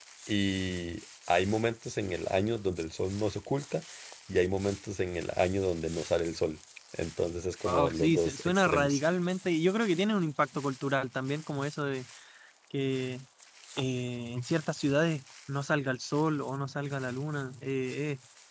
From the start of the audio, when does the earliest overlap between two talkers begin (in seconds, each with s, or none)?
7.6 s